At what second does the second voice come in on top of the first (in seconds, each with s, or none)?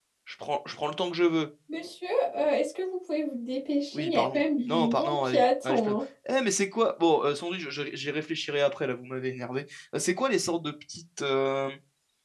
3.9 s